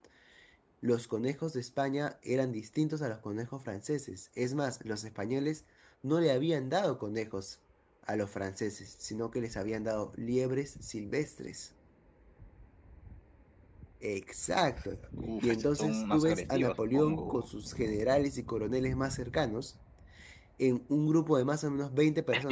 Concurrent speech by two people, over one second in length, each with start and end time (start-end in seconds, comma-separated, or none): 15.4-17.5